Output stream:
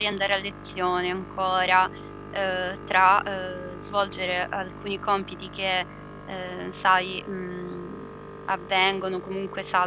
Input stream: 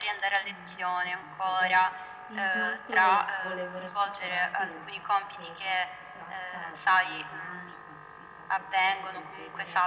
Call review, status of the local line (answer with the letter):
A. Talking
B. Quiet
A